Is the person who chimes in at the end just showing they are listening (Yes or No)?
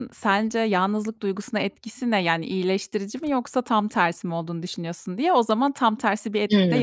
No